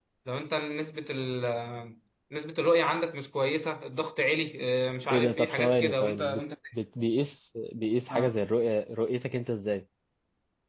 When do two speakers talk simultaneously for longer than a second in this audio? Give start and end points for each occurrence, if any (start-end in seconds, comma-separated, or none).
5.1-6.4